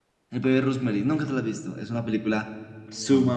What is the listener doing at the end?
listening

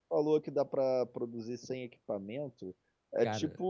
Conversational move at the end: listening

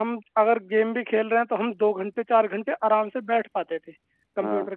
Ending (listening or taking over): listening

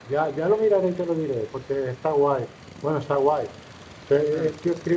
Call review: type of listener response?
listening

